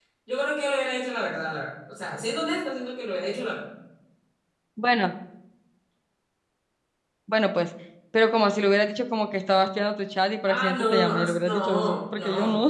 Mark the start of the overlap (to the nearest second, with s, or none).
10 s